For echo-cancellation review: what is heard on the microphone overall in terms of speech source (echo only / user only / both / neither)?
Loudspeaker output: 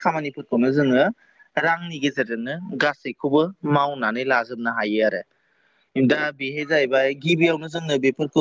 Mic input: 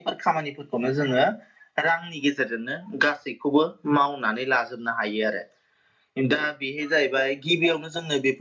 echo only